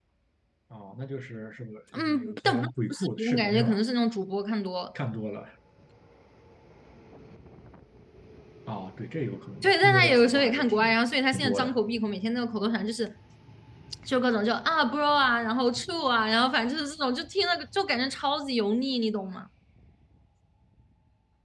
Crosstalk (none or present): present